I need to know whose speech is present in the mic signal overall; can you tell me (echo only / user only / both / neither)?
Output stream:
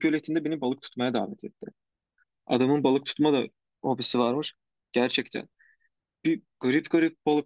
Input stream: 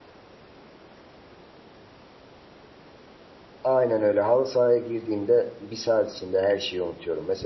user only